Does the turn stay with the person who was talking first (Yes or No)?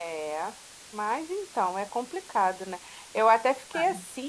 Yes